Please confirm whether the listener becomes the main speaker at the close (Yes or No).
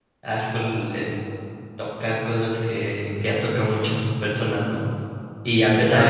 No